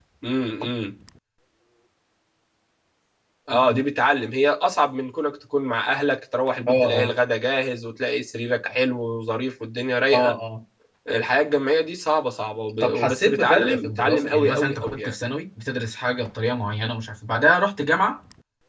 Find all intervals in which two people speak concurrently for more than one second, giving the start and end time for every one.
12.8-15.1

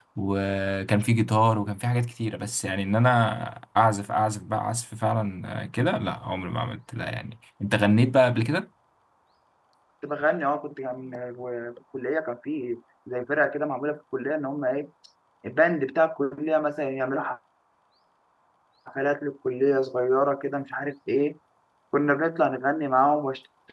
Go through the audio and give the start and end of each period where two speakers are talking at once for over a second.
none

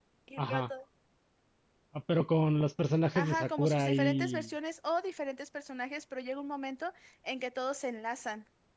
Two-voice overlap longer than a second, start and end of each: 3.2-4.5

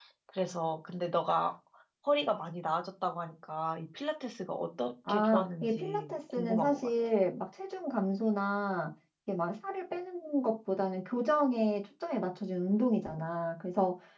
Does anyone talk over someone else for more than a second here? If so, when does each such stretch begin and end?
5.1-6.9

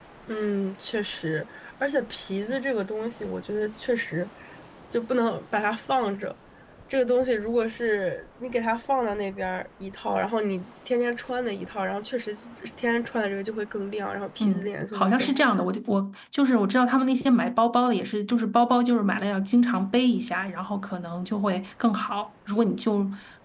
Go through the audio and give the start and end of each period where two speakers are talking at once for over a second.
14.4-15.7

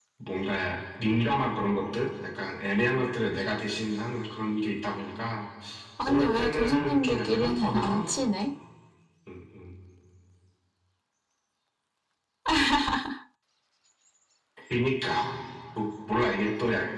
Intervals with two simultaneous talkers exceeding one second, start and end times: 6.0-8.0

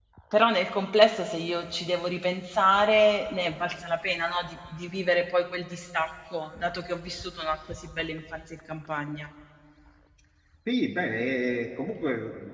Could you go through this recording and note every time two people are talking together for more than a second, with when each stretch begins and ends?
none

